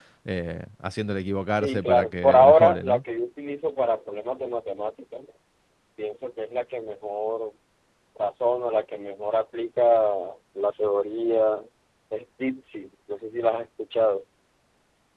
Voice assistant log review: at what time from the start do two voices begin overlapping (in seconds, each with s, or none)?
1.5 s